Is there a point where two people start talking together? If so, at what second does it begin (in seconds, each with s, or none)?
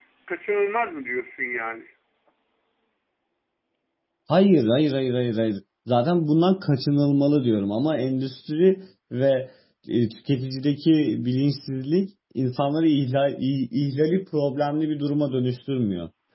none